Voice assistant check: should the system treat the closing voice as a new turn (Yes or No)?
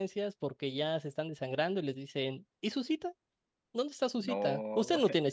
No